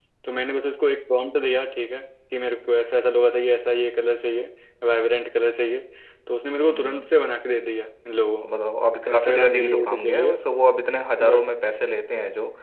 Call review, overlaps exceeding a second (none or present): present